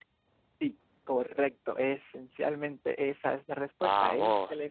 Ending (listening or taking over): listening